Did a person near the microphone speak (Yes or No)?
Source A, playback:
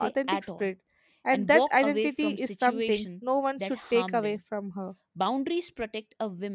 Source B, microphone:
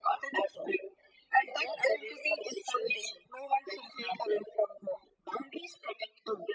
No